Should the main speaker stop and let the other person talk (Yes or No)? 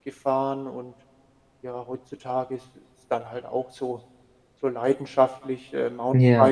No